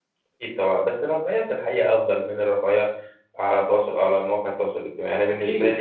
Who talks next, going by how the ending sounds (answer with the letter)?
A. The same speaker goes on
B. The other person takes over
B